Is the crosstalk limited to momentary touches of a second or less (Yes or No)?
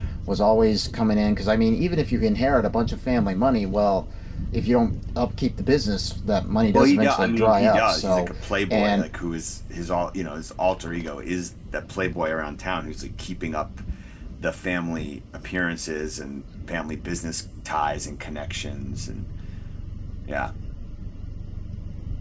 No